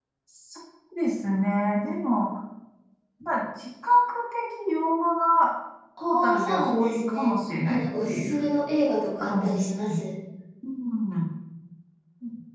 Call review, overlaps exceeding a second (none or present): present